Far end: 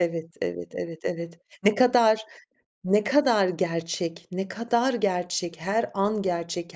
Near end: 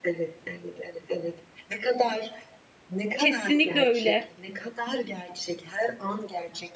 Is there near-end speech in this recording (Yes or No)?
Yes